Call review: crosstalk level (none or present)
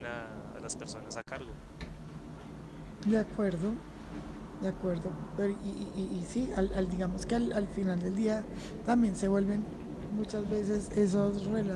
none